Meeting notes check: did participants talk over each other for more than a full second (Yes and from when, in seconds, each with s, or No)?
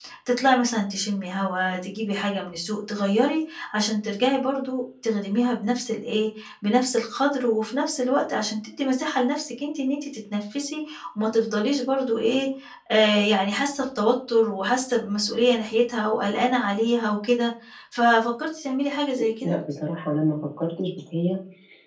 No